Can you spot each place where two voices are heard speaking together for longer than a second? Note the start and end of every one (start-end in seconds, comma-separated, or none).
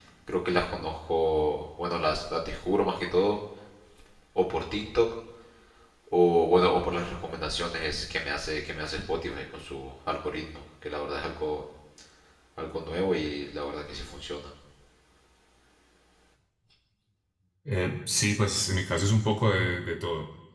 none